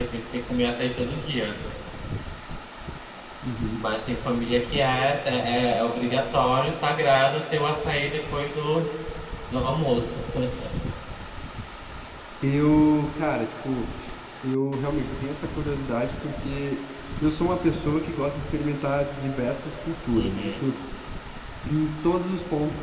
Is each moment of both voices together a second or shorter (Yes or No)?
Yes